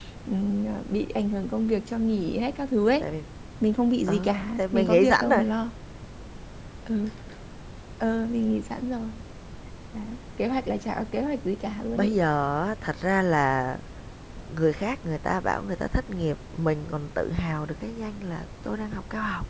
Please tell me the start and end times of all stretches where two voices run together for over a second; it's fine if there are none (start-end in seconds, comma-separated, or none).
4.1-5.4